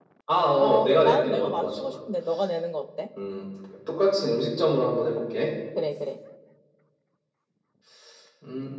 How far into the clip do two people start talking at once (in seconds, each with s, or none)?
0.6 s